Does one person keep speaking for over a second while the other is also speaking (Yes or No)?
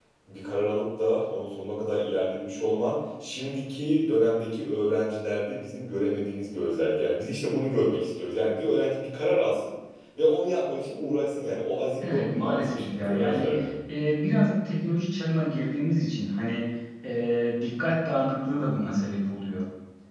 Yes